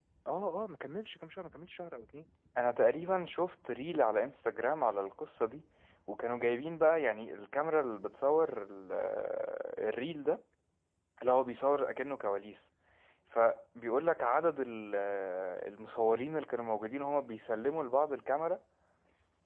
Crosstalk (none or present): none